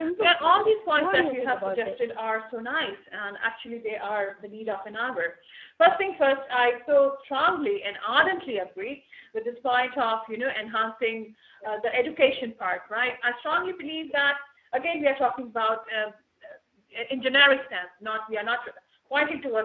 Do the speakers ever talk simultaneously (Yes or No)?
Yes